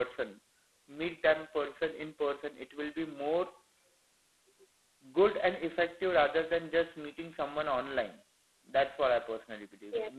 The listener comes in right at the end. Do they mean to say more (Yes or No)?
Yes